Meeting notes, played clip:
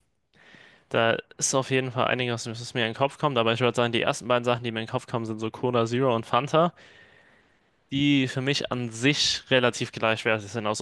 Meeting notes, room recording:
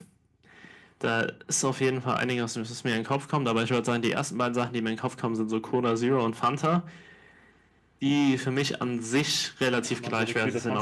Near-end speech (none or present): present